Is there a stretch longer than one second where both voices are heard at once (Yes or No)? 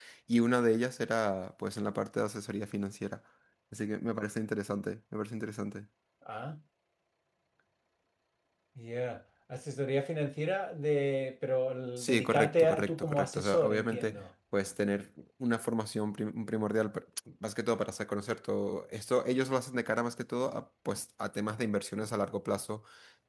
Yes